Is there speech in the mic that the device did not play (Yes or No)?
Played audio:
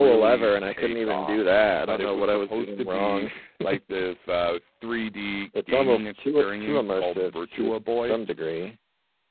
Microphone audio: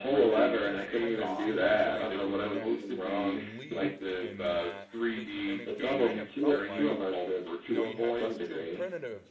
Yes